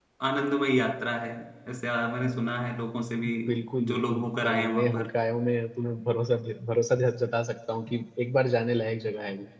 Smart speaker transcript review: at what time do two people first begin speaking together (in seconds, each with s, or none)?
3.9 s